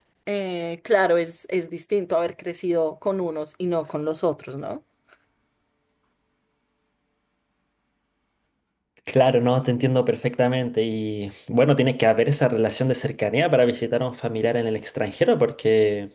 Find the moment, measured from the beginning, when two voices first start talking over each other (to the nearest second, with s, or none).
none